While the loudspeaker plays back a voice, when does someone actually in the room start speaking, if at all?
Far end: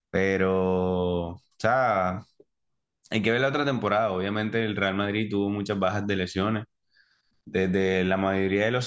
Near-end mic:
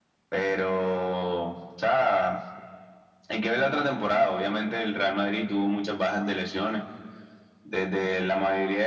none

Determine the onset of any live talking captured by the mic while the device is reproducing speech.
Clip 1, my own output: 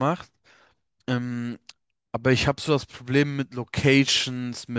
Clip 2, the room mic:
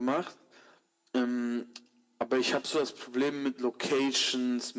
none

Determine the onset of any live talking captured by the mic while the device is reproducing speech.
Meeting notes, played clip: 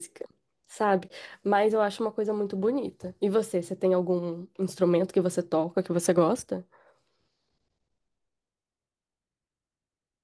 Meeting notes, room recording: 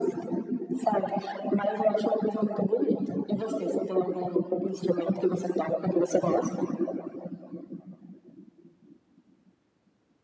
none

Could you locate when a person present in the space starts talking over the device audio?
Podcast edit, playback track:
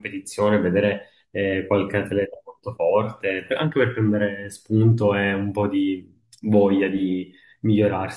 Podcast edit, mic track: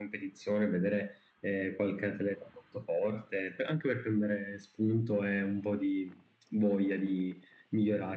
none

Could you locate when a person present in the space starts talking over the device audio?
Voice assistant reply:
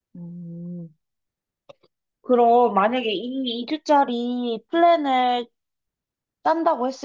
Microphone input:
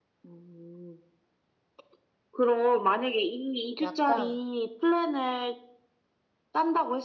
3.8 s

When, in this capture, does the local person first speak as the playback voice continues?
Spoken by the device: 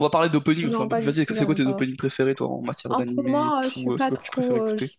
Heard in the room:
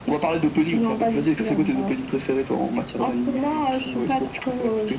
none

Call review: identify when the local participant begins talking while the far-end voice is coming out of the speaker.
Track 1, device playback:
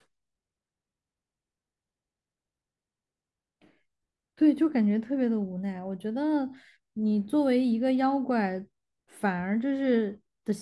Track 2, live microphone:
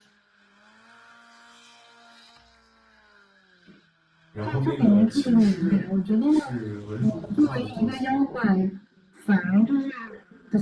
4.3 s

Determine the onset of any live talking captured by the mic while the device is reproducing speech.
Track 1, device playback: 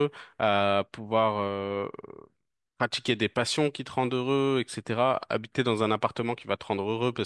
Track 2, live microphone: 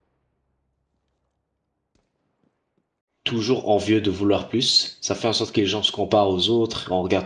3.2 s

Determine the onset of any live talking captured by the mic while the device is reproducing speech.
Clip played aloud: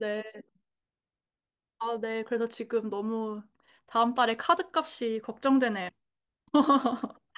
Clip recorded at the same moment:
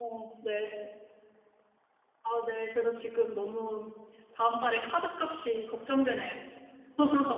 none

